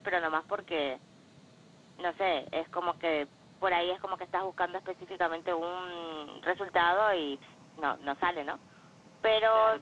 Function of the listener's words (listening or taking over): taking over